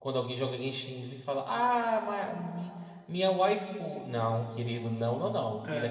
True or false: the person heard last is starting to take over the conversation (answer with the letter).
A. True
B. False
B